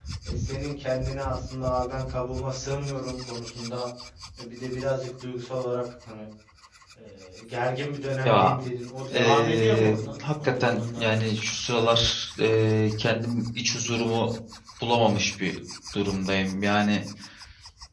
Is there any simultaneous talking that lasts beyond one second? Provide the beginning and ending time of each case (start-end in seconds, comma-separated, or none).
9.1-11.1